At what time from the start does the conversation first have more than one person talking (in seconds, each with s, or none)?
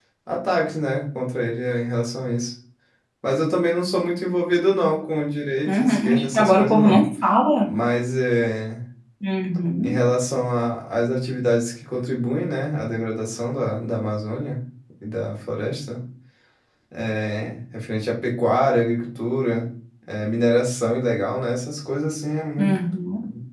5.7 s